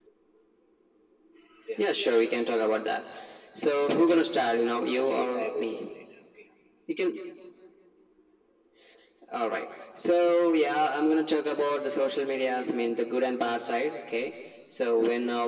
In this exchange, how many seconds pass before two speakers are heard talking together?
4.3 s

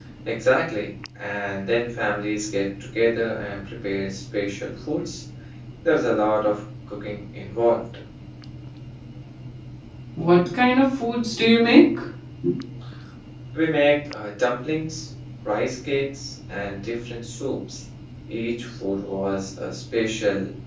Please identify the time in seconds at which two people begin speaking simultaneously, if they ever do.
none

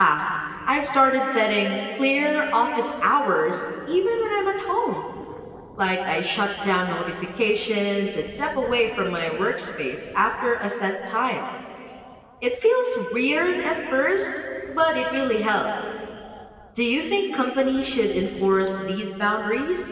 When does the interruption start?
none

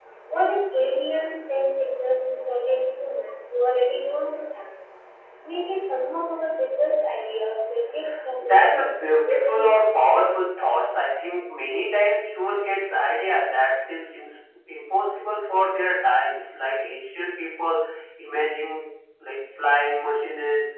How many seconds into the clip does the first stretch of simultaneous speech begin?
8.4 s

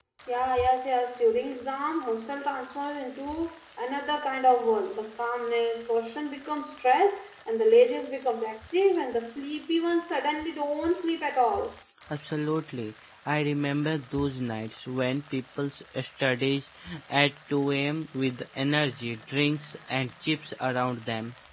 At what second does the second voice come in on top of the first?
none

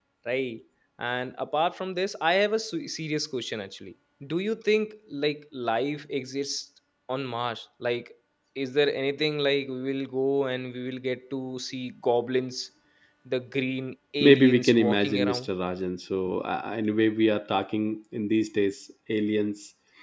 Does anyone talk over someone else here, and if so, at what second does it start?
14.2 s

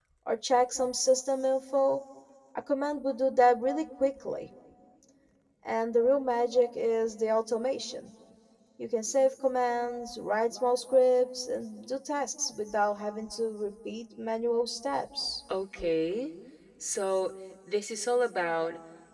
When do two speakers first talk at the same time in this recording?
none

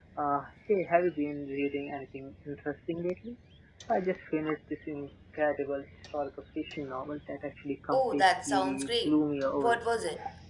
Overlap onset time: 7.9 s

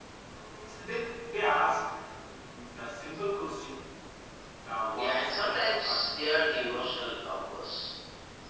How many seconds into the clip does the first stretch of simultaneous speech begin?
4.9 s

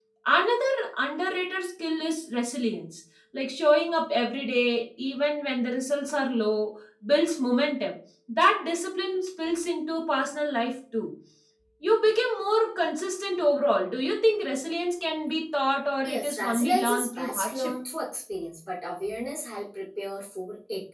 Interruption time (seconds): 16.0 s

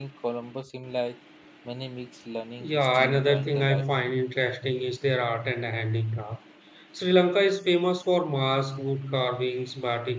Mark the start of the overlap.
2.6 s

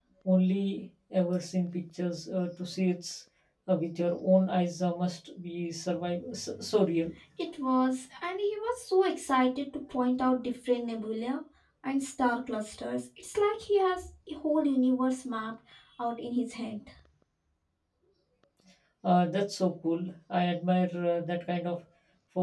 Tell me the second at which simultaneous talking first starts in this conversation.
none

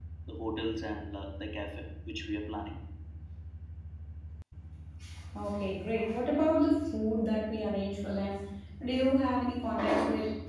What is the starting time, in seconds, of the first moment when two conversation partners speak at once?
none

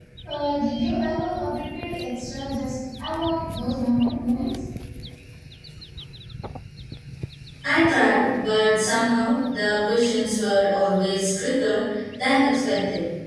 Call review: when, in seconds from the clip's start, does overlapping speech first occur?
none

